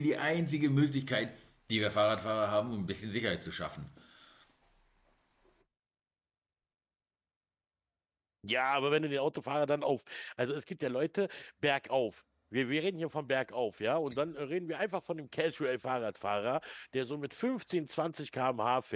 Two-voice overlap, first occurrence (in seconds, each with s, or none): none